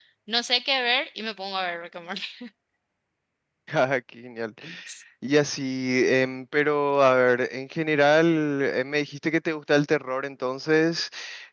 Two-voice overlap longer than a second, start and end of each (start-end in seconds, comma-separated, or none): none